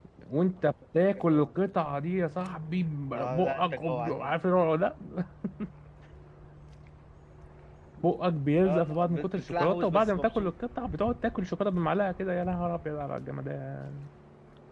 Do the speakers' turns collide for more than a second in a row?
Yes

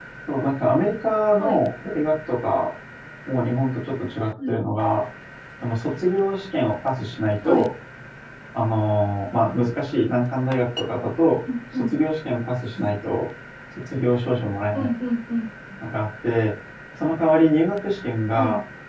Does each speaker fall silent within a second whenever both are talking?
Yes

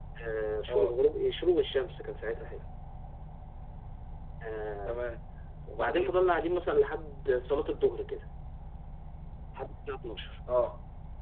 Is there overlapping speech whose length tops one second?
No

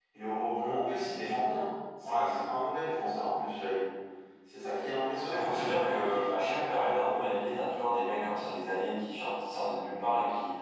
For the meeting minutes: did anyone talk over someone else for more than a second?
Yes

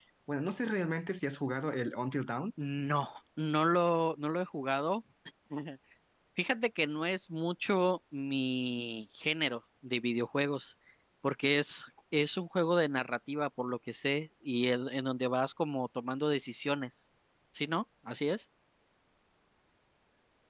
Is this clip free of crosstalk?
Yes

